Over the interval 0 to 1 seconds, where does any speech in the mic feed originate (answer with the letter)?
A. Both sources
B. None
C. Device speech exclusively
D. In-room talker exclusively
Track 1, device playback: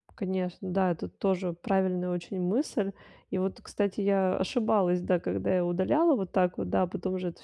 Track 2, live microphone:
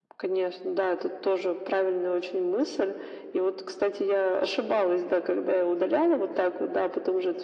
C